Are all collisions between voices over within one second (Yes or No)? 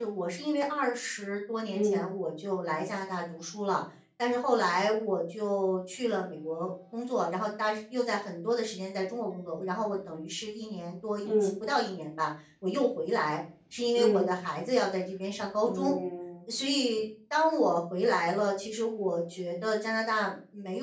Yes